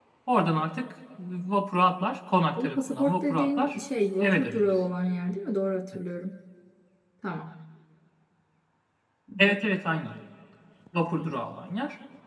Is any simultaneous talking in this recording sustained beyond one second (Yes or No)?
Yes